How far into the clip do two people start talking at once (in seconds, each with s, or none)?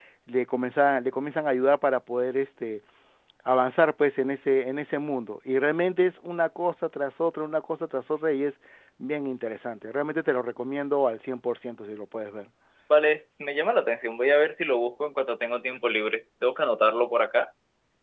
none